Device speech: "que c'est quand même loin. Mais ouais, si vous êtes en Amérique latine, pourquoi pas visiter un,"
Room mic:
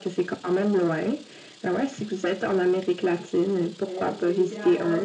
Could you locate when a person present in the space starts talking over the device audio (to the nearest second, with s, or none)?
4 s